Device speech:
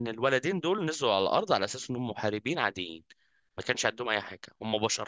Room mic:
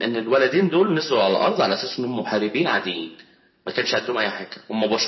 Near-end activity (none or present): none